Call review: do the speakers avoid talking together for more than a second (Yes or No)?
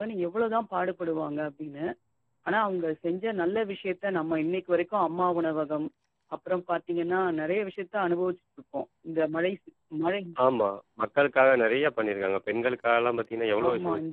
Yes